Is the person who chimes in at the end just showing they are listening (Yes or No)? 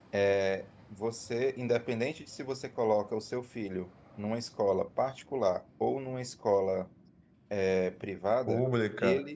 No